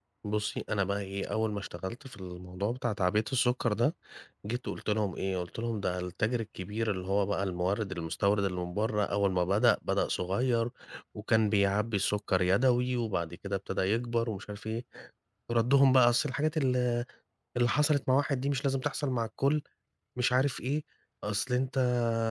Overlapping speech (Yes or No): No